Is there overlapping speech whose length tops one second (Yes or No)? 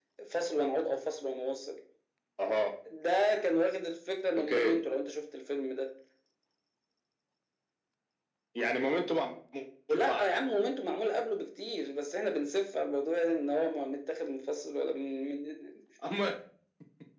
No